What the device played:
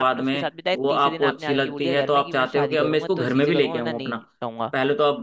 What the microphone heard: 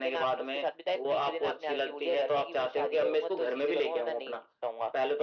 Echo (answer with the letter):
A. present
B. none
A